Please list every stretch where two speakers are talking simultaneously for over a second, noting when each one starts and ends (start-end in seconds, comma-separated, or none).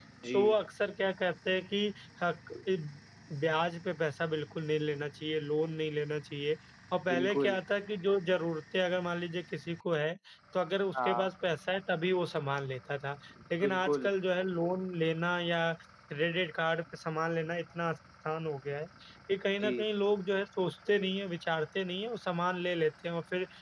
none